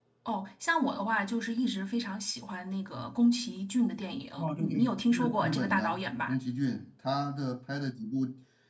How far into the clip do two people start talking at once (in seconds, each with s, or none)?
4.4 s